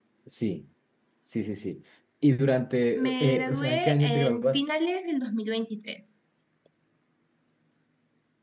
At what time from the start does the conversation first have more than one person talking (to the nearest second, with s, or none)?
3 s